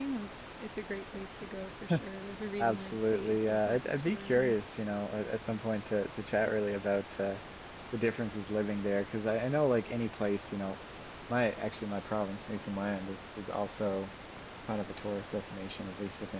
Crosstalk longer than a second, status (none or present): present